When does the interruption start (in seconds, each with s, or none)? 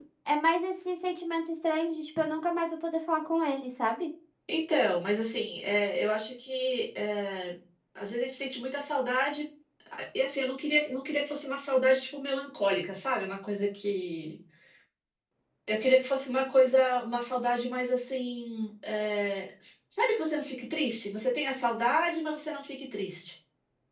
none